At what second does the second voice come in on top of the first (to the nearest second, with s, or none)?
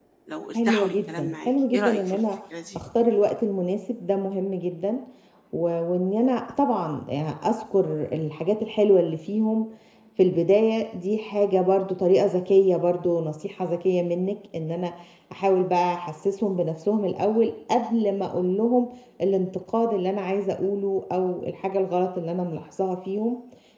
1 s